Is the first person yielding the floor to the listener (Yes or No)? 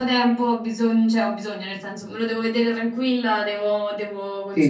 Yes